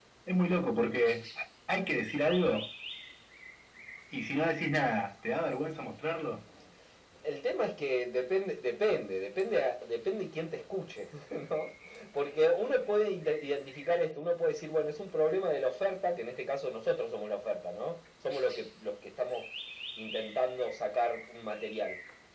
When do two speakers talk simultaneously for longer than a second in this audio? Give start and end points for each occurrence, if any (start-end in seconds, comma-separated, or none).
none